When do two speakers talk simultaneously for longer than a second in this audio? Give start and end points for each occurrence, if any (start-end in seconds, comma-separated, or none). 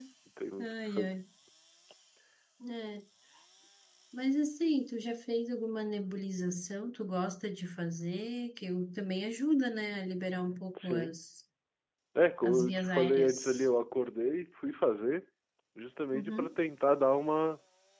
12.4-13.7